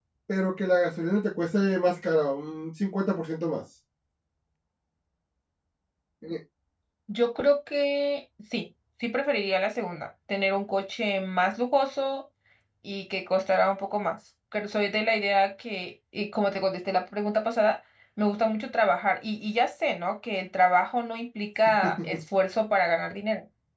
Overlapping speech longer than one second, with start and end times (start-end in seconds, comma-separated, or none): none